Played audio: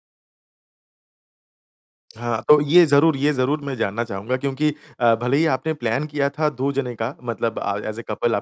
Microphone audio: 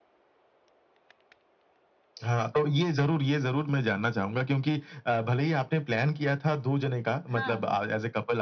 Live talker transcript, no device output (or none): हाँ, बिल्कुल।